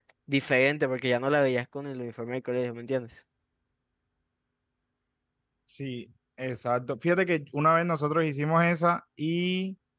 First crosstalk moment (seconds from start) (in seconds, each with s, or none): none